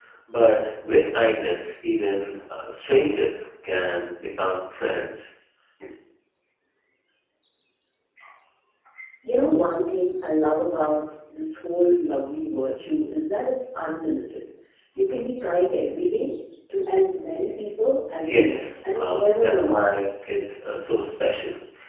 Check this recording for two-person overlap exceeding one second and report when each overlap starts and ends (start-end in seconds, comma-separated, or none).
18.3-19.9